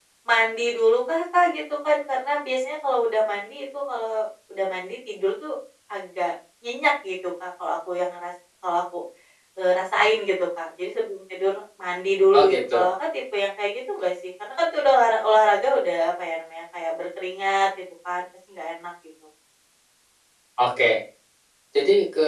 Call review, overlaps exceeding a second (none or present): none